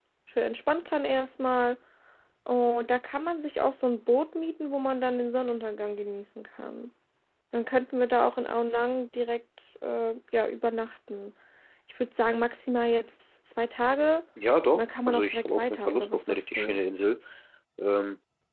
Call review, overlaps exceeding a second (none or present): present